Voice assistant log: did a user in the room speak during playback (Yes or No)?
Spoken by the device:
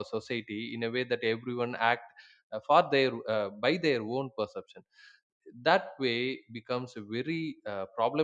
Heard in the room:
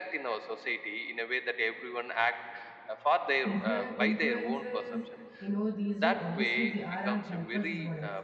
Yes